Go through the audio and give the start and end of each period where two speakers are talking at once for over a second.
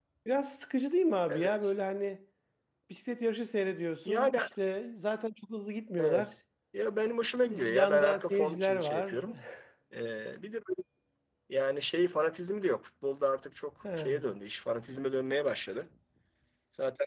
7.5-9.2

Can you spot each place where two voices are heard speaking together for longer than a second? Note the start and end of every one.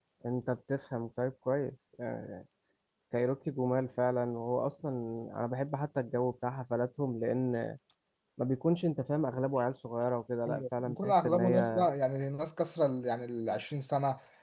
10.5-11.9

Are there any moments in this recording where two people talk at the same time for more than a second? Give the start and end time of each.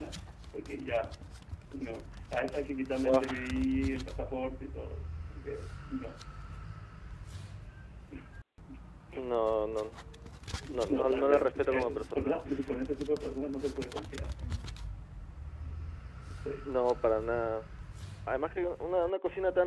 10.9-12.4

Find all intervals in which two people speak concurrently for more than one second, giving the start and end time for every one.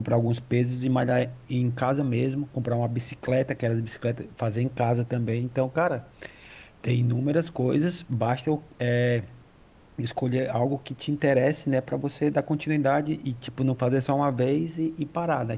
none

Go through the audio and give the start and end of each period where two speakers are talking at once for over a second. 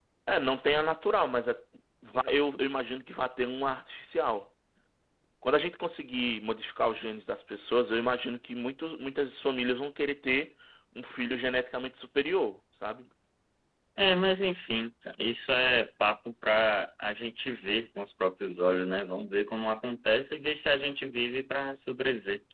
none

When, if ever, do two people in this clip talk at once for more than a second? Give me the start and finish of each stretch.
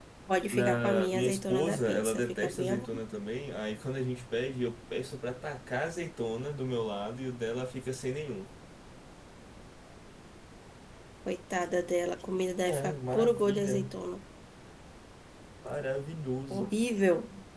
0.5-2.8, 12.7-13.9

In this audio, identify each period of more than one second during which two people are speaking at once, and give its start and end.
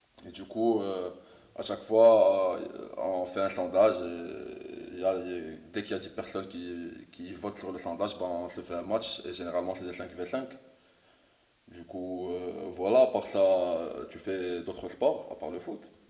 none

